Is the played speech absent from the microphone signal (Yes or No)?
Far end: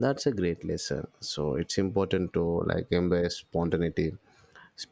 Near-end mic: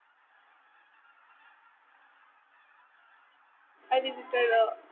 Yes